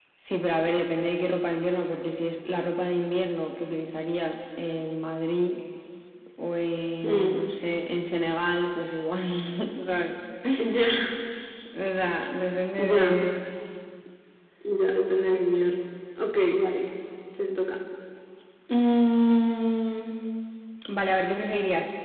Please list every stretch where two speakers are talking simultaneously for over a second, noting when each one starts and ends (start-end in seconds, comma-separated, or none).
none